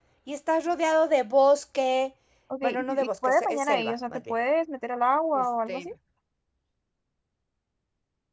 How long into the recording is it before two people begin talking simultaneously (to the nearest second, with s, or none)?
3 s